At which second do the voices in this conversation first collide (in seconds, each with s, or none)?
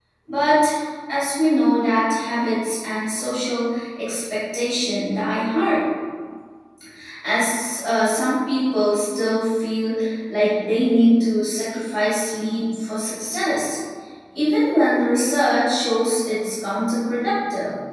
none